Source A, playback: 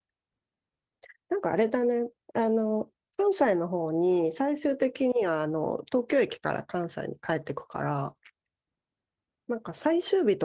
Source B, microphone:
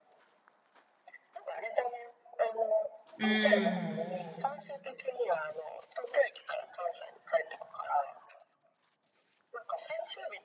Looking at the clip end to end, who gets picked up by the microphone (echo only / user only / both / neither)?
both